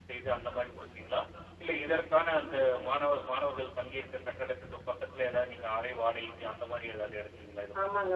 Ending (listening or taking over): taking over